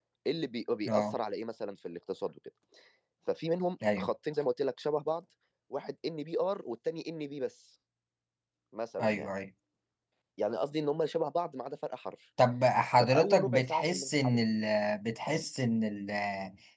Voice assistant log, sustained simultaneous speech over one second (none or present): present